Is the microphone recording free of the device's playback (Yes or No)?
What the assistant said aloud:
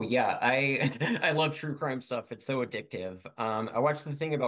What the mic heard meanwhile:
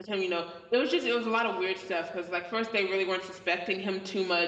Yes